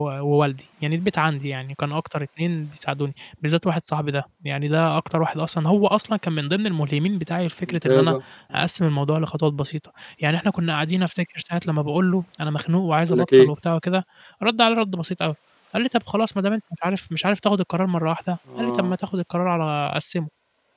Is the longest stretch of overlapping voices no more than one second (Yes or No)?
Yes